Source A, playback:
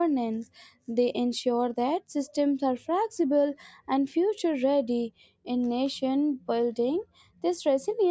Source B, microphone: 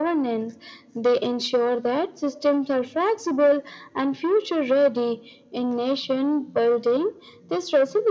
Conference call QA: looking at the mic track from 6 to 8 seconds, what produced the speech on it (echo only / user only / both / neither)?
echo only